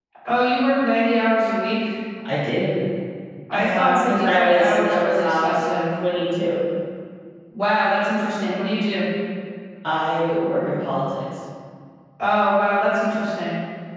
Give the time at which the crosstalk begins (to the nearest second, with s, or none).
4 s